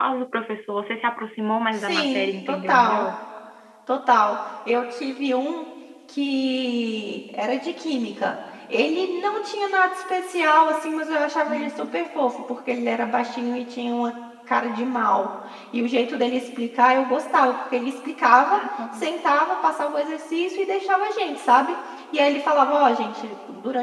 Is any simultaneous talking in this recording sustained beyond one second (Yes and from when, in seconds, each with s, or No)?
Yes, from 1.8 s